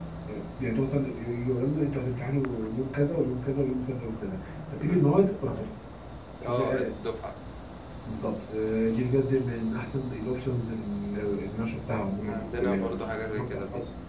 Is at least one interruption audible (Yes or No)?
Yes